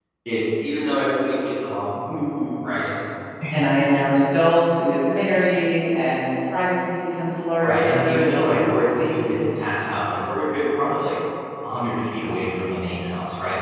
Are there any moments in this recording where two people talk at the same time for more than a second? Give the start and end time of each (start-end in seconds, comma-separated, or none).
7.6-9.6